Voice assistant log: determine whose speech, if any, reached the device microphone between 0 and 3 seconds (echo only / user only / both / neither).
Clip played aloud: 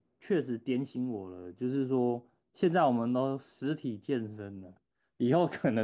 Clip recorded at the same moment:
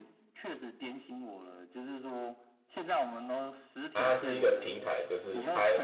echo only